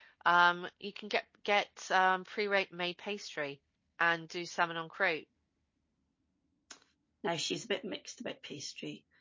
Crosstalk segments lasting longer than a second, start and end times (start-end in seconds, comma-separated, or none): none